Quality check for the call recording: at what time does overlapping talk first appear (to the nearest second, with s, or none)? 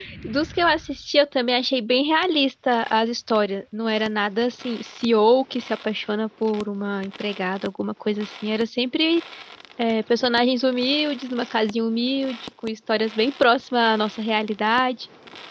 none